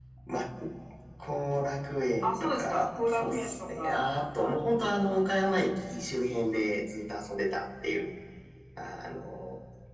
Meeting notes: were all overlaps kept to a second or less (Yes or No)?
No